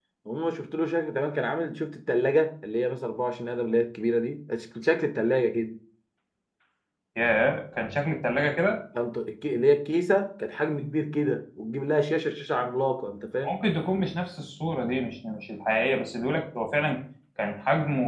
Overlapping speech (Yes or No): No